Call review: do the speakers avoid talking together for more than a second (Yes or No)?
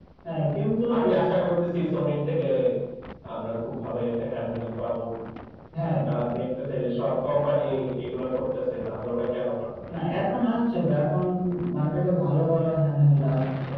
Yes